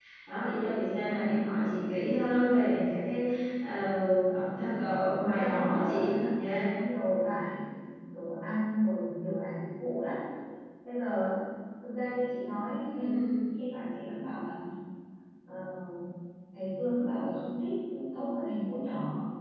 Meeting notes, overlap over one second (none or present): present